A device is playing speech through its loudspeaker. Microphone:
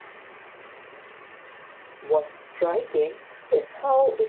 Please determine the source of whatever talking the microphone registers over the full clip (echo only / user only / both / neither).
user only